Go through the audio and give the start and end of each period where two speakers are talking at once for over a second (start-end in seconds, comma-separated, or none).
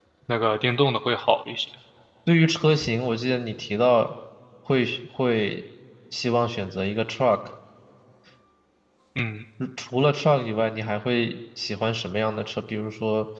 none